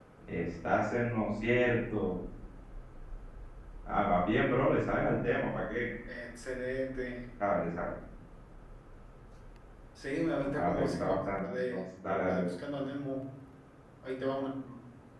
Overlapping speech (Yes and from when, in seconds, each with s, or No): Yes, from 10.4 s